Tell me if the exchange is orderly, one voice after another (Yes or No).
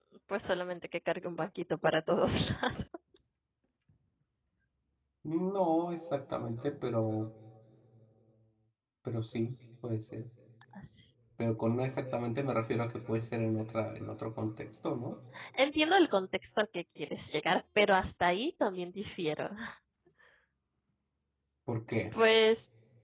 Yes